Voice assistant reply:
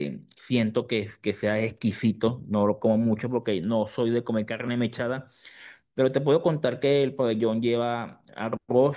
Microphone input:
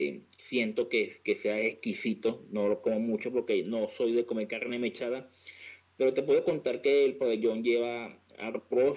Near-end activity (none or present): none